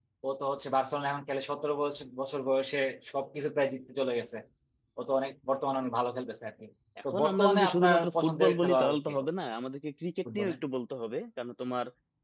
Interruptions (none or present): present